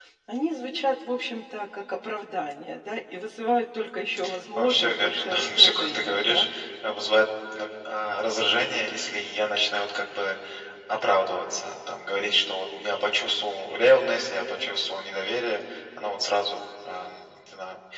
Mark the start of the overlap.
4.6 s

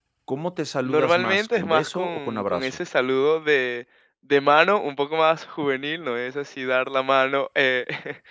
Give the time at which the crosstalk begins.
0.8 s

